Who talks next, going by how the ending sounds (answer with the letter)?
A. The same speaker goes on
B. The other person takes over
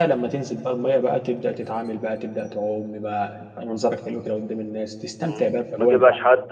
B